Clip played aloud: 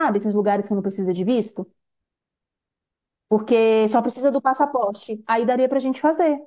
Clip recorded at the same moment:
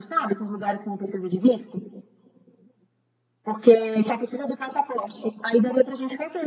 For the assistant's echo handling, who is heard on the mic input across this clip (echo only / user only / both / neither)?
echo only